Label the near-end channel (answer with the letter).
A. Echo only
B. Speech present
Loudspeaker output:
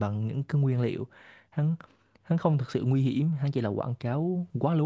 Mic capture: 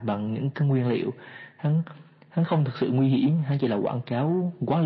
A